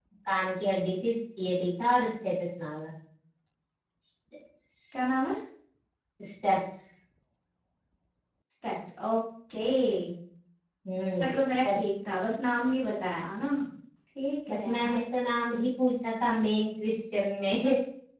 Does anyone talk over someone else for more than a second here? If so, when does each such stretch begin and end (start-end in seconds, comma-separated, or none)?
none